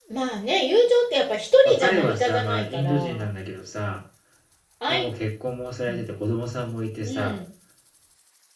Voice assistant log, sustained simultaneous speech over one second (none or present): present